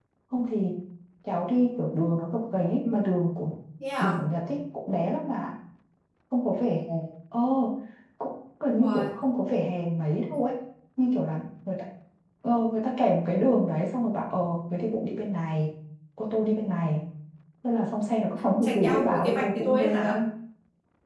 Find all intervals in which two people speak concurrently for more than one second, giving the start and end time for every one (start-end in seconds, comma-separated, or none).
18.4-20.2